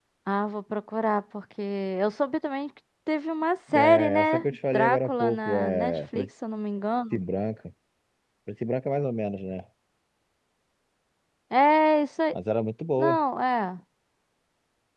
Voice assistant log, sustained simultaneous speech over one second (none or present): present